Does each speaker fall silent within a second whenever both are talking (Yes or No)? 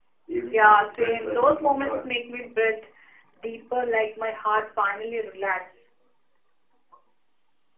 No